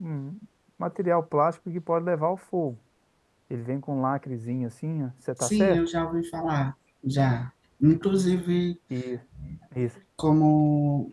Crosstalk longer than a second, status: none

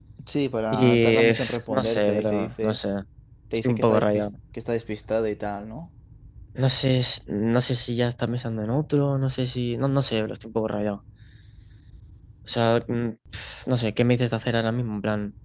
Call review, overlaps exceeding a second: present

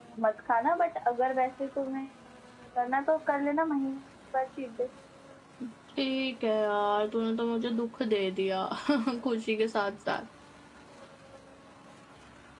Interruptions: none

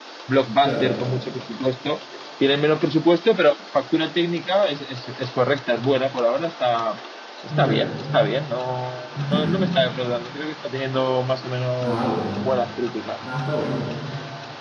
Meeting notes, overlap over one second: none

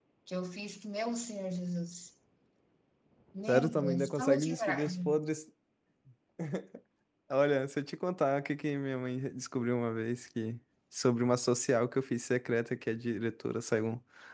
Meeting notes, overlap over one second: present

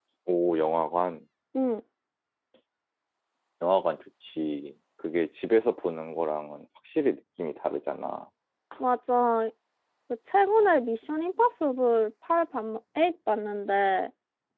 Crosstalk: none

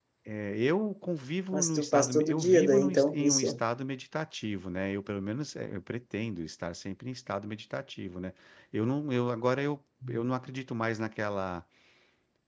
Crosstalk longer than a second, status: present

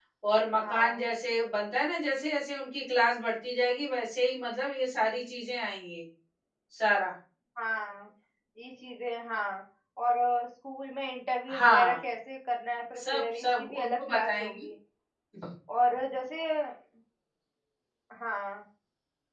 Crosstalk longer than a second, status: present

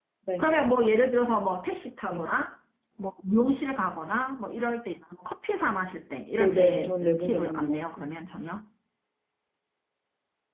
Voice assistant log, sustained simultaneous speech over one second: present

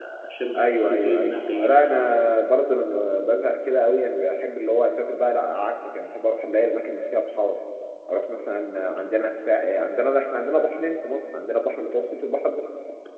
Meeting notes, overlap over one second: present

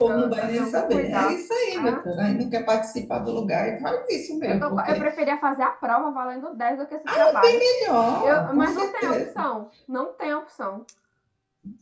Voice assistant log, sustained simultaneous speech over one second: present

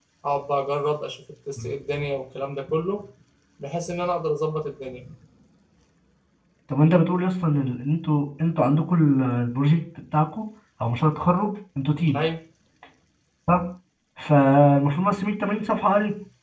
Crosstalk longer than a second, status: none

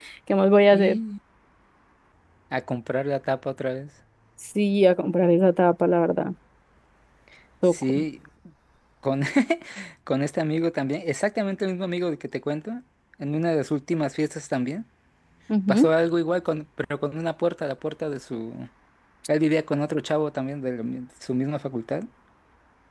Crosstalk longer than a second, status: none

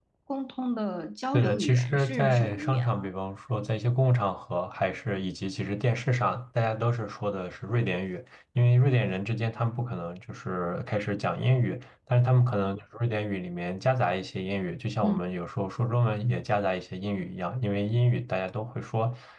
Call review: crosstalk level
present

